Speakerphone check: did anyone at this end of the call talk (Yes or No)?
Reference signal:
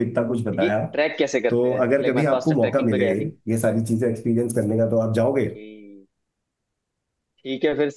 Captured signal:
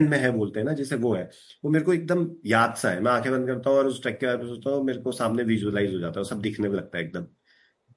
Yes